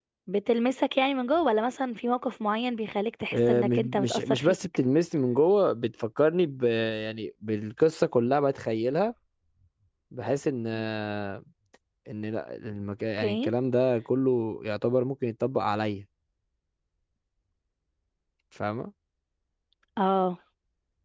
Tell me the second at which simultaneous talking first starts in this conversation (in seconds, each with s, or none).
3.3 s